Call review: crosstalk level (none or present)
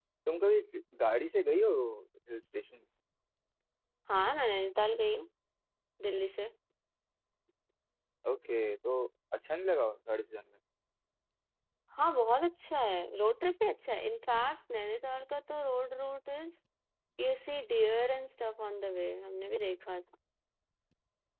none